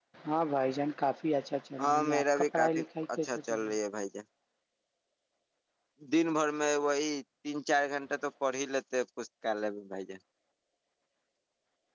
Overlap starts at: 2 s

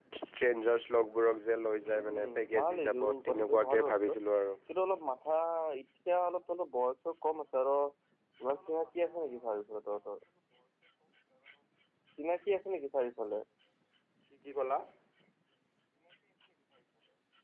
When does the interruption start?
2 s

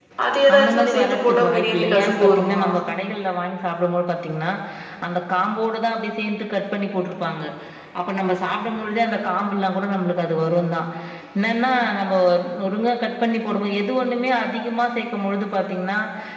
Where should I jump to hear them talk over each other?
1 s

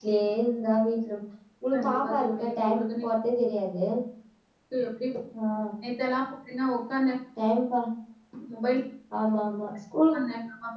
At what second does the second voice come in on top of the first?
2 s

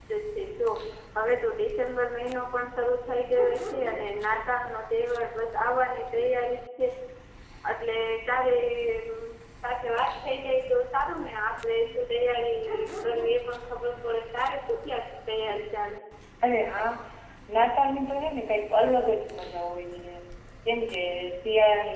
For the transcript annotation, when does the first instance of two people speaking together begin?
none

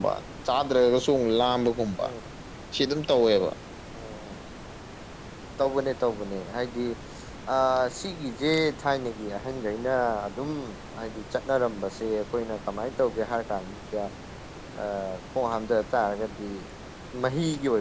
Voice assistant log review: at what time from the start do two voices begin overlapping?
none

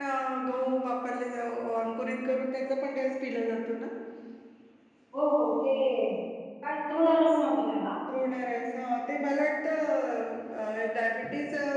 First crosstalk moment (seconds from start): none

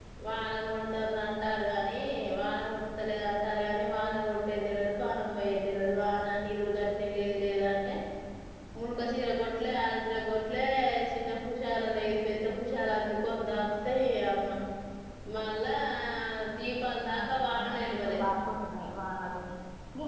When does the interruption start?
17 s

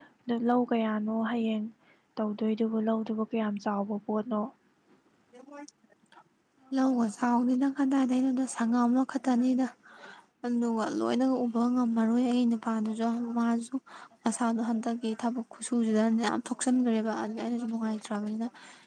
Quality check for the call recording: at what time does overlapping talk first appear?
none

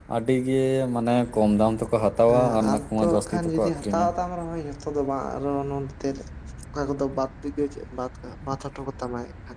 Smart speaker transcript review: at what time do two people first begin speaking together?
2 s

